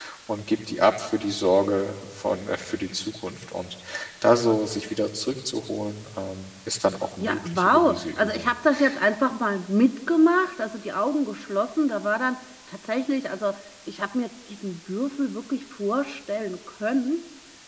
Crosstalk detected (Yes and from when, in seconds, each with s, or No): Yes, from 7.2 s